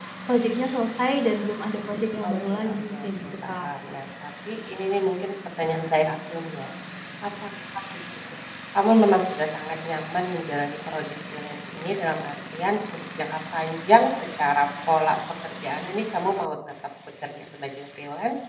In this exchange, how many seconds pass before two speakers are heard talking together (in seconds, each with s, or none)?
2.3 s